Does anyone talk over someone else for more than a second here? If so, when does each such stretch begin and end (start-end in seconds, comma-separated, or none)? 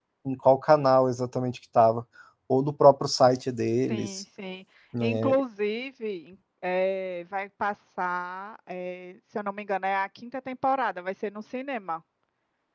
none